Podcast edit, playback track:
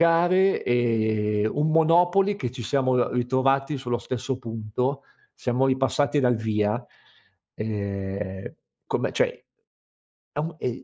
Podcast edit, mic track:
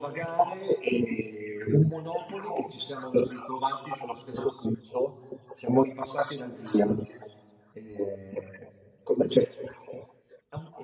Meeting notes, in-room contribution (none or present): none